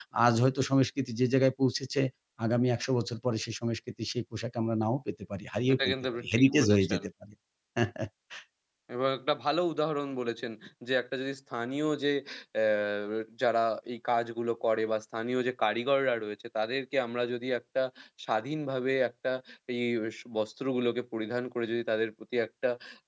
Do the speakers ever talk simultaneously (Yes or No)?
Yes